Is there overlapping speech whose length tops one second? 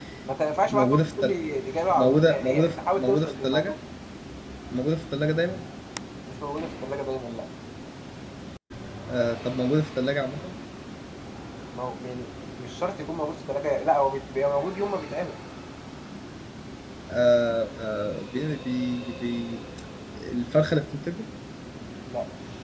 Yes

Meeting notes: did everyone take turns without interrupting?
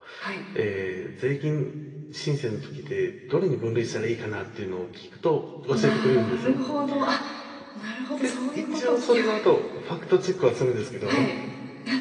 No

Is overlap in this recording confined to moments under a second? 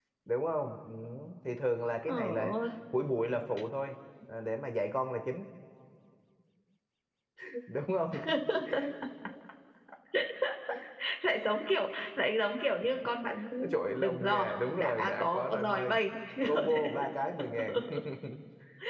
No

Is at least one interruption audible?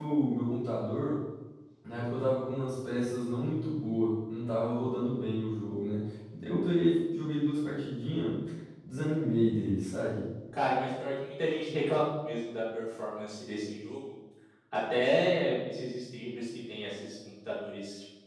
No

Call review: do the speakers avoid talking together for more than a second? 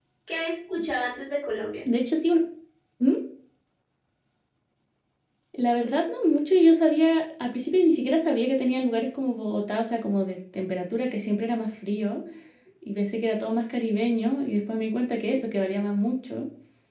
Yes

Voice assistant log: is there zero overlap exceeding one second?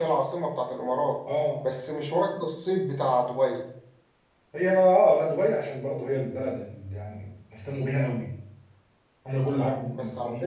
Yes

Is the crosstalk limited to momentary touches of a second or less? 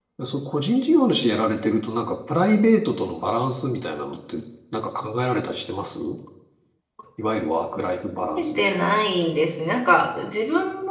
Yes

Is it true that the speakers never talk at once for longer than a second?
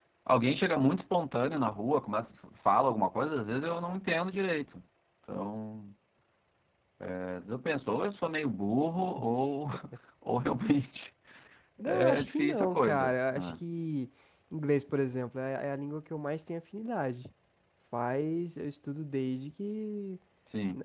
No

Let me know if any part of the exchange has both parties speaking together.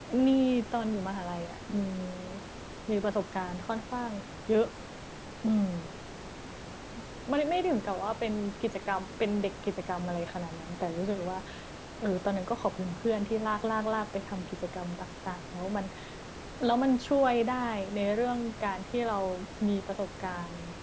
No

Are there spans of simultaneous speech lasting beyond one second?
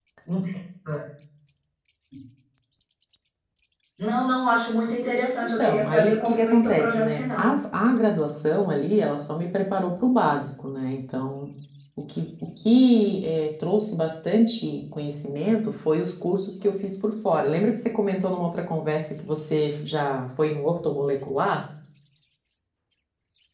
Yes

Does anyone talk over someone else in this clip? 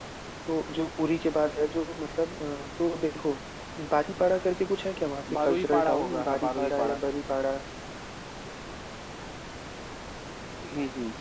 Yes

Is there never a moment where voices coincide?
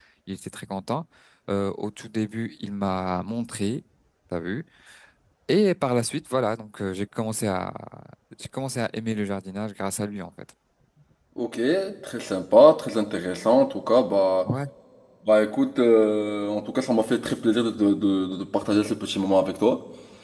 Yes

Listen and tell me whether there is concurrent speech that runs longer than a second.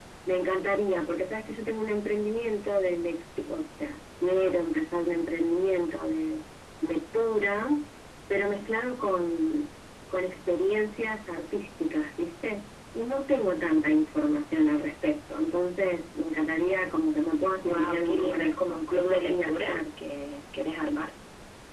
Yes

